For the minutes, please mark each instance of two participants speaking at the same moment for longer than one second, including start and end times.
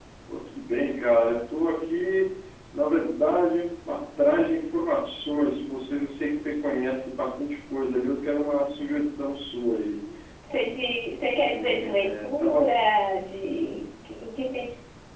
11.5-12.7

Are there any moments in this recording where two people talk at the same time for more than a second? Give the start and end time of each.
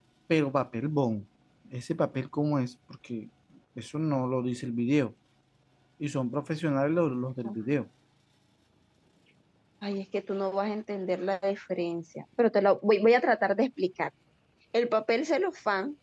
none

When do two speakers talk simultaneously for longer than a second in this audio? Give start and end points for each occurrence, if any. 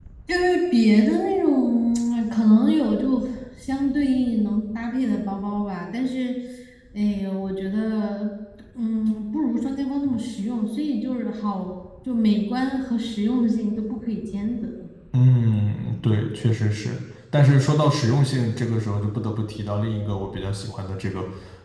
none

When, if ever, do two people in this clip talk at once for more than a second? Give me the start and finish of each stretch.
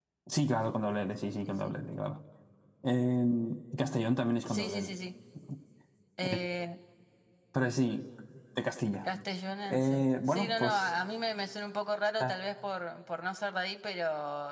9.6-10.9

